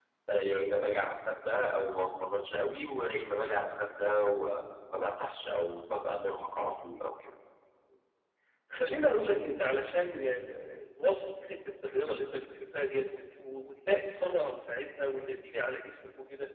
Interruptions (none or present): none